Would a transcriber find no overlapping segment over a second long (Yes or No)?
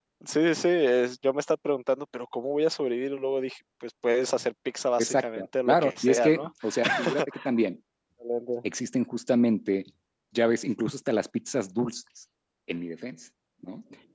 No